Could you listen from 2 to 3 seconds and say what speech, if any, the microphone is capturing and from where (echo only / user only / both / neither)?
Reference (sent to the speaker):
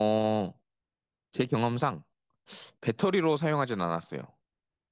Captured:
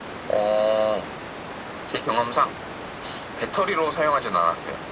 echo only